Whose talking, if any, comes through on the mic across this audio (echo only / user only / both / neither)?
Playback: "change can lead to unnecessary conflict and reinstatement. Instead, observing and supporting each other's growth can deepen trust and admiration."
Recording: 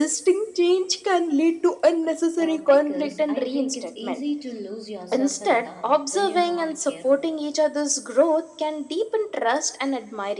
both